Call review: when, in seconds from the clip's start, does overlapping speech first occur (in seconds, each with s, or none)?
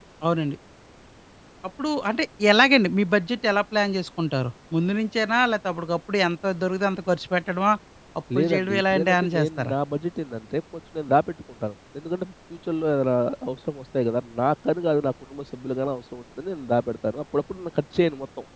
8.4 s